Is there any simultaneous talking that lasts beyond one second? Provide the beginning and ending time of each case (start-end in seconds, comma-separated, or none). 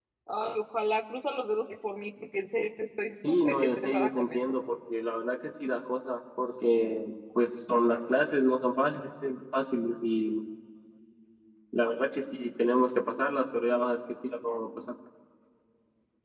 3.2-4.5